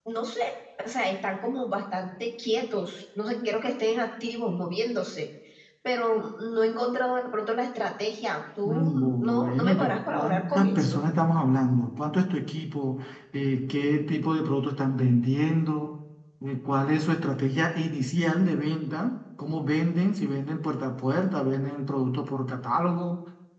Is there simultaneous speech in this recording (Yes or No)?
Yes